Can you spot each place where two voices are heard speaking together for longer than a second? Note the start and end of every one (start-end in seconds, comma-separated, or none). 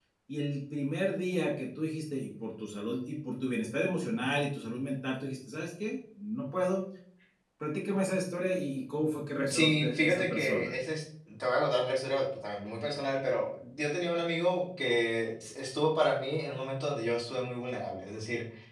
9.5-10.7